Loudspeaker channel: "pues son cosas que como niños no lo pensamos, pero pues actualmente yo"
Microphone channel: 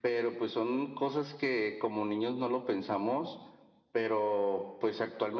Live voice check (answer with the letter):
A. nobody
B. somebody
A